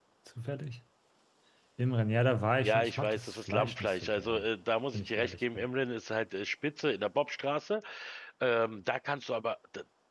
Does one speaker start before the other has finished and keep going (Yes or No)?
Yes